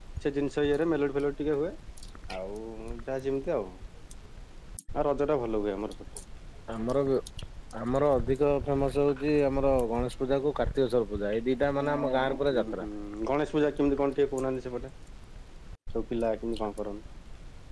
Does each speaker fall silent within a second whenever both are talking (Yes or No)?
Yes